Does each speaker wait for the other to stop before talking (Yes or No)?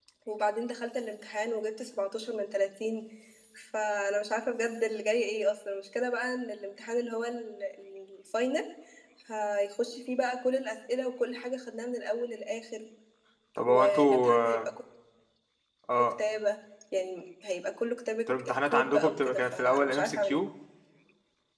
No